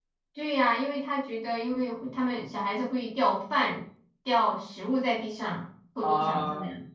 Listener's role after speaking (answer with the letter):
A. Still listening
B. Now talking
B